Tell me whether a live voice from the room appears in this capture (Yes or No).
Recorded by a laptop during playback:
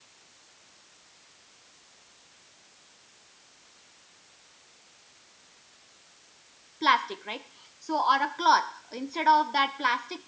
Yes